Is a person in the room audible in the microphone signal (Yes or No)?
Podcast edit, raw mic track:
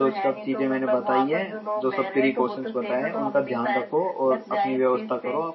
Yes